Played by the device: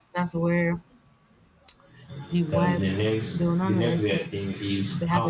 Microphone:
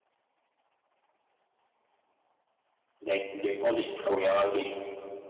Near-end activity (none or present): present